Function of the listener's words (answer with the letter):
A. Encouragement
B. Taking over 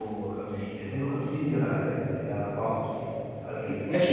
B